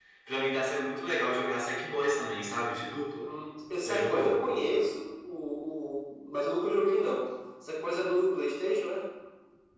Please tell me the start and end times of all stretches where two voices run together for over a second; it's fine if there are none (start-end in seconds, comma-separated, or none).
none